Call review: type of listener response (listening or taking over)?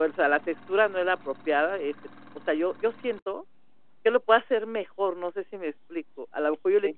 listening